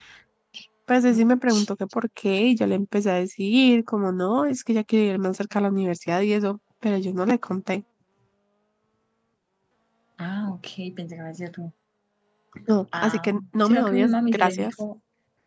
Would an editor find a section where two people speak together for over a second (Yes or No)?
Yes